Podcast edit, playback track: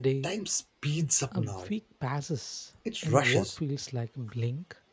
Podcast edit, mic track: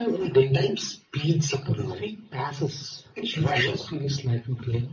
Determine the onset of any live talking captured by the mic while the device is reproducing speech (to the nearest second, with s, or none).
none